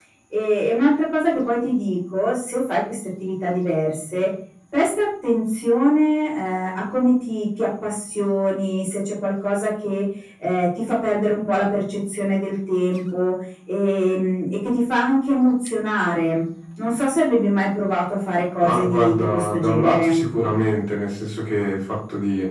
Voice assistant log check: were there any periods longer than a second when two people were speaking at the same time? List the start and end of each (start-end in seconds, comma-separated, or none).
18.6-20.2